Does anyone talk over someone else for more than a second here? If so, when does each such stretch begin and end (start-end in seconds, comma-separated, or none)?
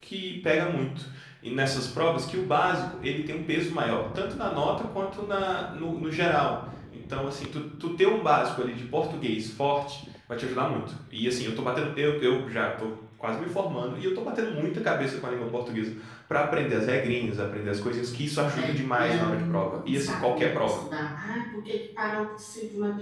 18.5-20.8